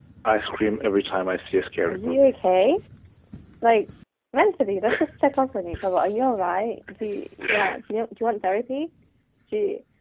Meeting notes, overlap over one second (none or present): none